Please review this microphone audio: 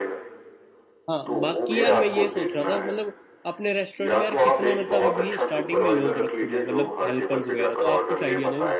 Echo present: Yes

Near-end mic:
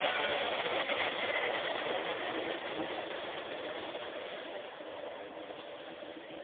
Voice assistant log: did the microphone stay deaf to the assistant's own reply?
Yes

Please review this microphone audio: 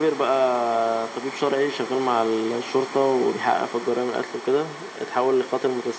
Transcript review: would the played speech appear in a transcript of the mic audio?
Yes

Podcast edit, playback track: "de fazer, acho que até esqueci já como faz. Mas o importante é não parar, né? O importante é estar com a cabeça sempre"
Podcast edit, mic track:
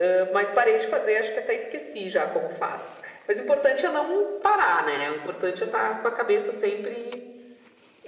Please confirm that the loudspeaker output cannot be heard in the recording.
No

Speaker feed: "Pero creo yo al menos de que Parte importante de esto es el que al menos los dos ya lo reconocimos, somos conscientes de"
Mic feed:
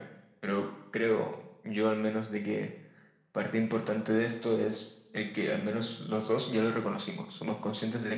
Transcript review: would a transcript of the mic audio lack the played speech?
No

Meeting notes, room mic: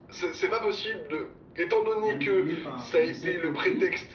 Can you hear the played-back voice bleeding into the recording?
Yes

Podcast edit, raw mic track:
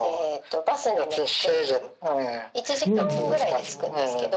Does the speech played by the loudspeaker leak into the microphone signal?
Yes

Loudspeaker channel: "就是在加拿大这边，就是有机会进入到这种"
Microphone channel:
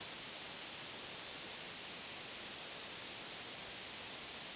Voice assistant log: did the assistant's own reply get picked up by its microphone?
No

